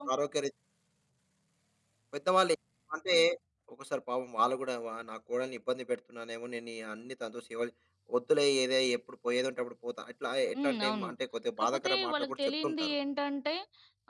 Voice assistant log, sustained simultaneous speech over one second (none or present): present